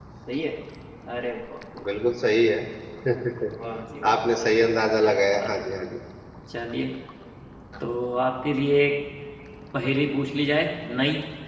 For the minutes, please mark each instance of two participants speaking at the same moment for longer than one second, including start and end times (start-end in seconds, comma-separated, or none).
4.1-5.5